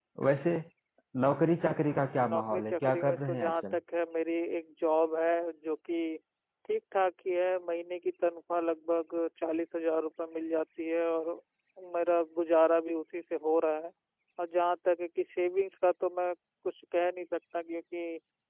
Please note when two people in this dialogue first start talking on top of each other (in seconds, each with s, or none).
2.2 s